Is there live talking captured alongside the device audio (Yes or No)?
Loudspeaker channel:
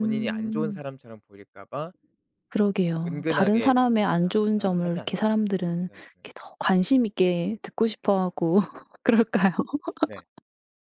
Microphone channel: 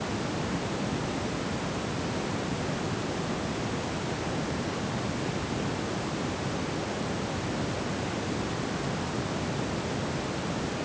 No